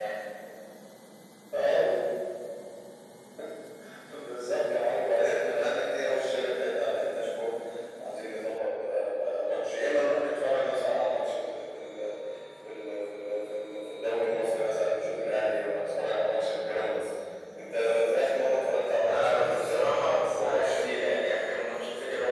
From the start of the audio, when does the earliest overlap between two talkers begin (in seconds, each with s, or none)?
19.0 s